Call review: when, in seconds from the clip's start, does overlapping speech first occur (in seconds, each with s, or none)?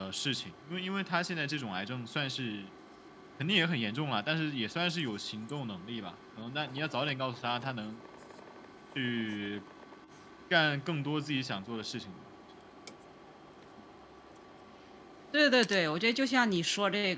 none